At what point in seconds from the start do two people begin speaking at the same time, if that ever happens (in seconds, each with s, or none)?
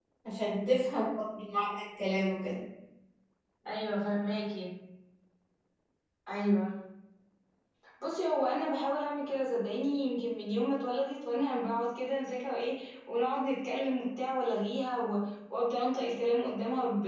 none